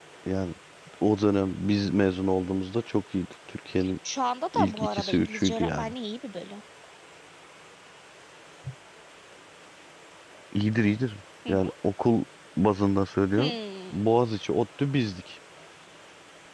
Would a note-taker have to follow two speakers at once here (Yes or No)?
Yes